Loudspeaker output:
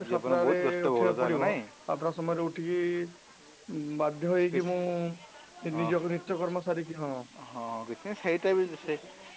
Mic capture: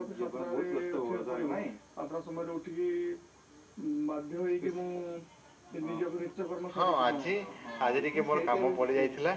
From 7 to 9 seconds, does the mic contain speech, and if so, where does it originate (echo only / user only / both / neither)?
both